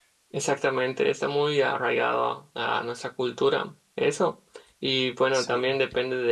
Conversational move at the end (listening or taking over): listening